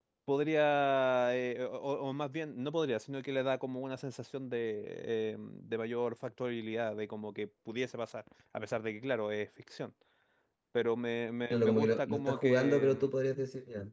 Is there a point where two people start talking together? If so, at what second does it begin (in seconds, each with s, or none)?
11.5 s